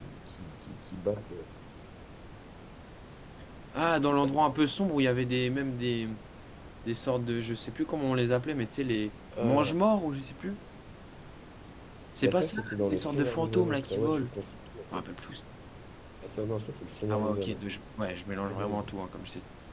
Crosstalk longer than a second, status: present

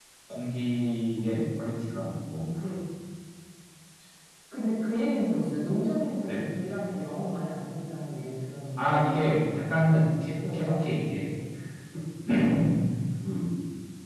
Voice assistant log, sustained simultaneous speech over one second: none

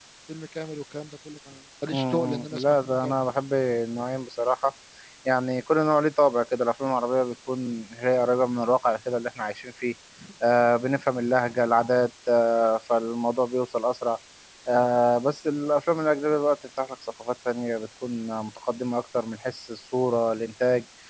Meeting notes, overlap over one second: present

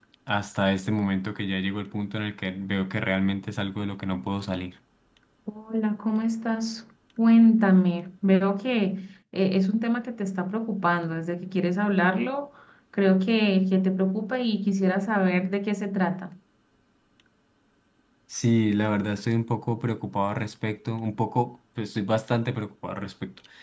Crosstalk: none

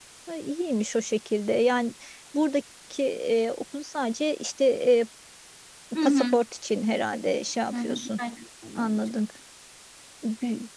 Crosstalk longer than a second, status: none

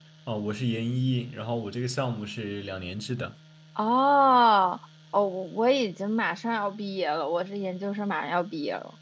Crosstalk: none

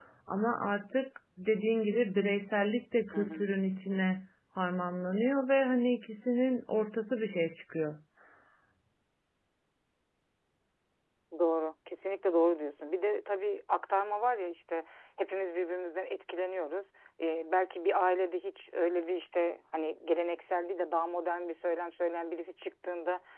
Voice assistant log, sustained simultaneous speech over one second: none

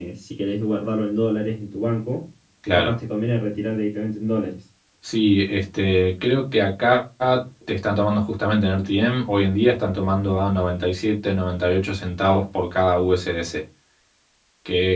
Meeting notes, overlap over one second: none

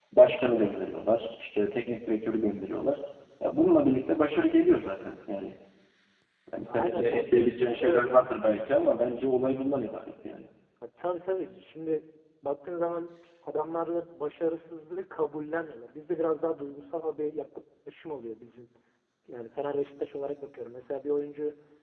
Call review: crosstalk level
present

